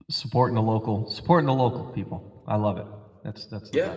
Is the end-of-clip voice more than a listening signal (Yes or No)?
Yes